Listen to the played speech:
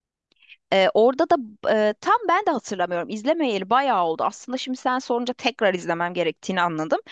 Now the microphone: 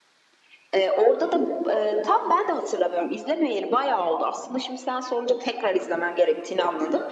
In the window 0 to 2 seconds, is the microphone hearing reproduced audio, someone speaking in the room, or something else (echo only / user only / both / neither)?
echo only